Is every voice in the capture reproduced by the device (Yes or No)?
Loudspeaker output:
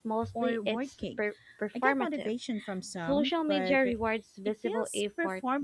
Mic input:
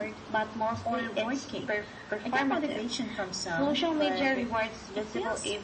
Yes